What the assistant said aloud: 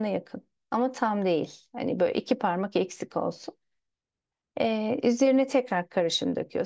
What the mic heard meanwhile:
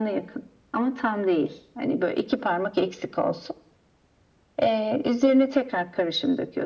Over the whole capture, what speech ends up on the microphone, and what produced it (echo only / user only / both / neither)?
echo only